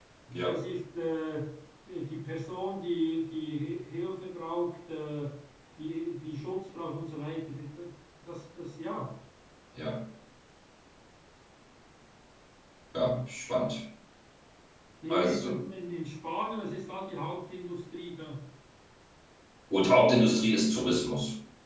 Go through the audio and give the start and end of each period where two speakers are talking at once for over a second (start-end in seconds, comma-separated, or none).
none